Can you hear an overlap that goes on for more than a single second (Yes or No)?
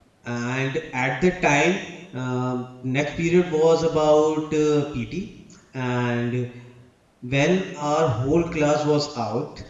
No